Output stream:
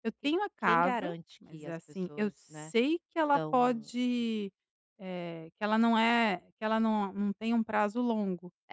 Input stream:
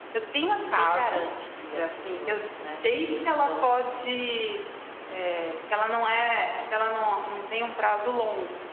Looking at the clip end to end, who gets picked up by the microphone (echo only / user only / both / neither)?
echo only